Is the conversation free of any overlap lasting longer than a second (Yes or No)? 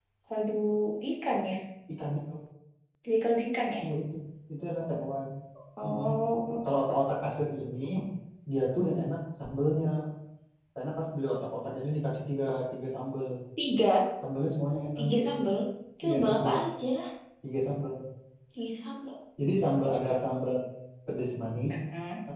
Yes